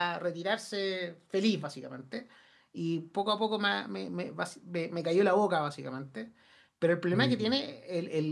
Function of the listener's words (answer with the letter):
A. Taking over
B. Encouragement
B